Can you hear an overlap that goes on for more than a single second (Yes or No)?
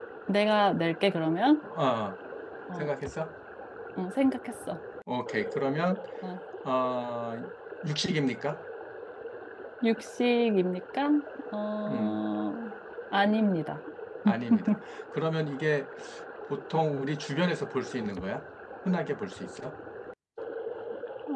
No